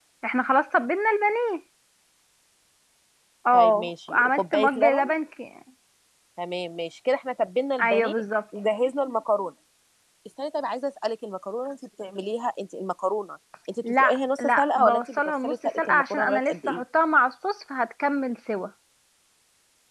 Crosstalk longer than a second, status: present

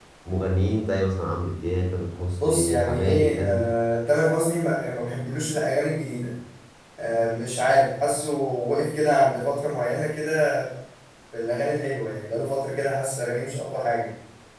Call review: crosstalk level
present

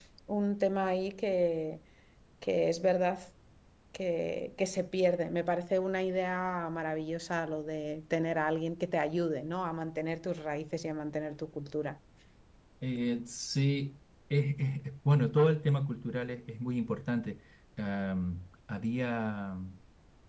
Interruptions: none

